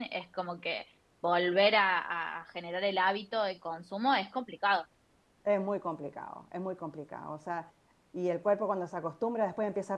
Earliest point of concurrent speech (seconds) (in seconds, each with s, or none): none